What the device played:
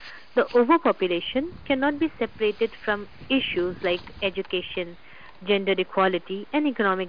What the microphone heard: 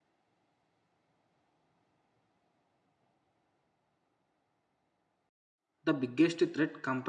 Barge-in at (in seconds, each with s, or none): 5.8 s